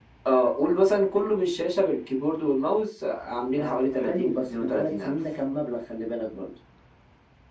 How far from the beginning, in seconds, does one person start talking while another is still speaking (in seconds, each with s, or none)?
3.6 s